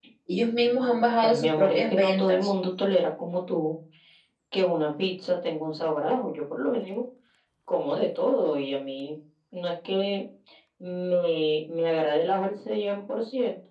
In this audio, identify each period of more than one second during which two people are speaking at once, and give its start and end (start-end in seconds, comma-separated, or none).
1.2-2.5